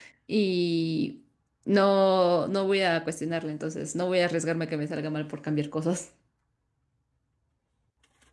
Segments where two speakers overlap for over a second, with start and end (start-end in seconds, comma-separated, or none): none